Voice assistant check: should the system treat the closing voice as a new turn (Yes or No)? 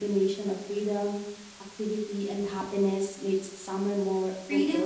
Yes